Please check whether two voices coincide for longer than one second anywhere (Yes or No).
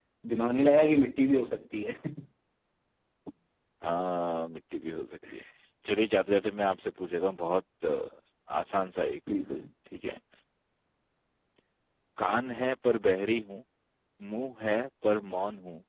No